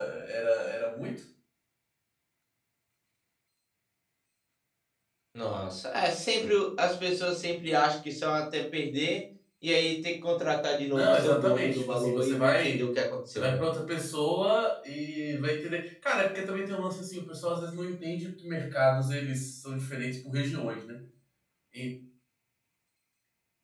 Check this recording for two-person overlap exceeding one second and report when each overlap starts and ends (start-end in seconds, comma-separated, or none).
10.9-12.9